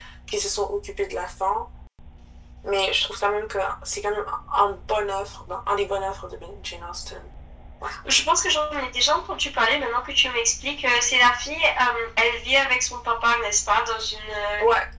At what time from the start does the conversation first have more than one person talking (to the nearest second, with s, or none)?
none